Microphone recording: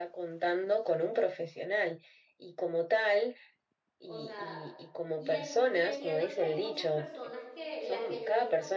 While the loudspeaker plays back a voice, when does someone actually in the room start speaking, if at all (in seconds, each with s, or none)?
4.0 s